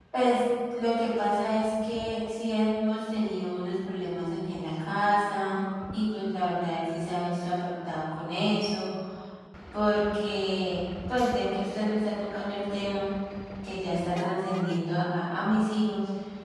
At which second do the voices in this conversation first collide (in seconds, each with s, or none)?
none